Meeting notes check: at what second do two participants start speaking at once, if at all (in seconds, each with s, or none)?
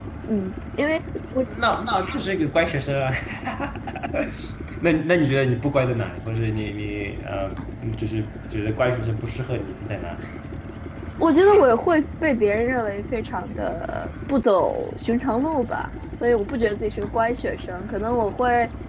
none